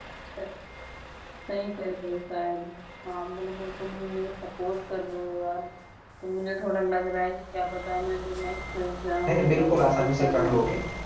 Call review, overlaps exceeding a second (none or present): present